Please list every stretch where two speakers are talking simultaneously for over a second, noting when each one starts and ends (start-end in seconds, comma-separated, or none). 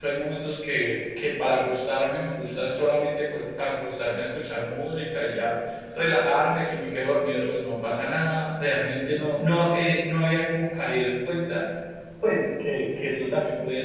none